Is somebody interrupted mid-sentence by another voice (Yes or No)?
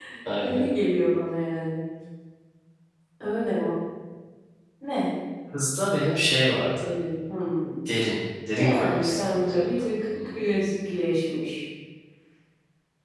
Yes